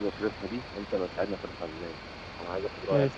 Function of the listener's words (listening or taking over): listening